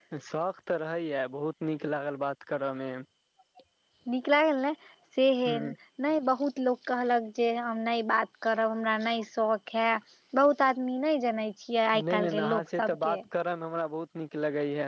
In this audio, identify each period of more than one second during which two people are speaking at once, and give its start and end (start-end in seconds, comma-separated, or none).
11.9-13.2